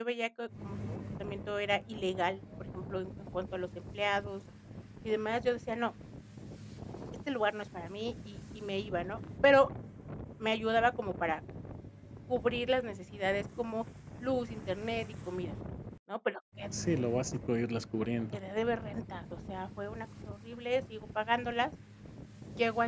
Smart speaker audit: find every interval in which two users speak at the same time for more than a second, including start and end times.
none

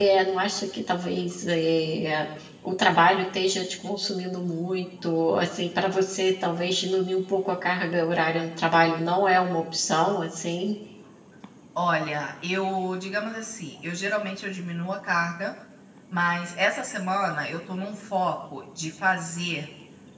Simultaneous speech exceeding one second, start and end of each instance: none

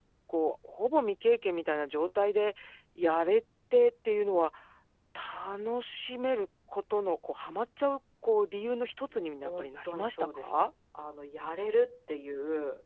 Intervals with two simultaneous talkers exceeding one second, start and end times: 9.1-10.7

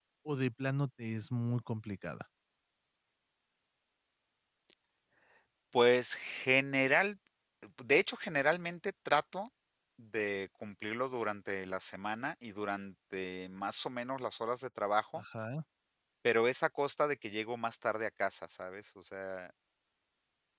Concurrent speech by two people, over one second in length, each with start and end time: none

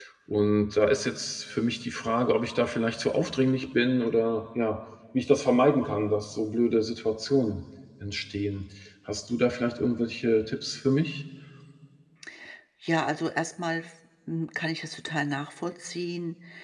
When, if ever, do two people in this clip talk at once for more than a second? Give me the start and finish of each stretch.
none

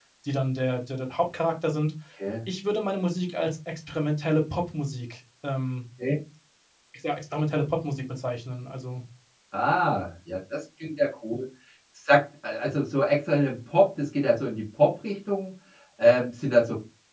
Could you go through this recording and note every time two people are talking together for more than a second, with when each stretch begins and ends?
none

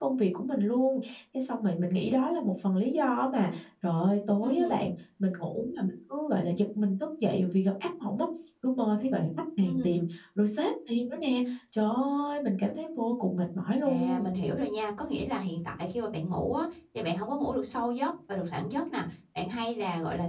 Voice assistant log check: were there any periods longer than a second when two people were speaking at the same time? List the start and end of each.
none

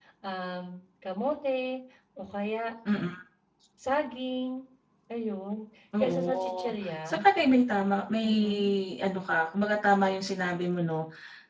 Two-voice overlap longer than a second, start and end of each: 6.0-7.2

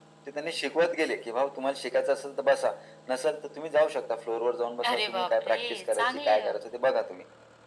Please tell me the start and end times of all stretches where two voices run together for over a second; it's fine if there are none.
4.8-6.6

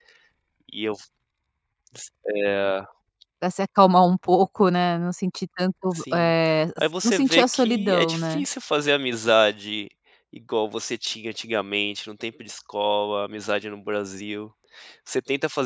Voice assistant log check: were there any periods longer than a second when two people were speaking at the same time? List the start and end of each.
7.0-8.4

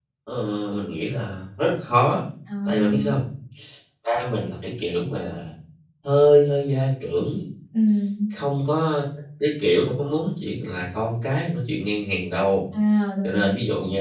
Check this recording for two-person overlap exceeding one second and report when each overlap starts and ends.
none

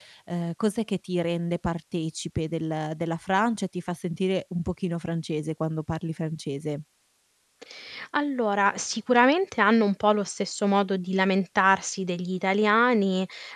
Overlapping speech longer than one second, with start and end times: none

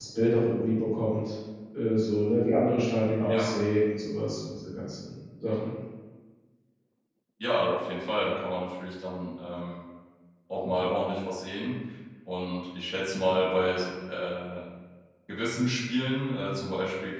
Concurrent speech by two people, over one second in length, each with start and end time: none

